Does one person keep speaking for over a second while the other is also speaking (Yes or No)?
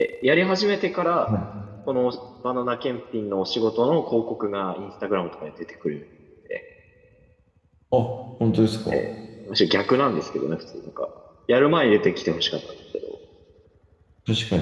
No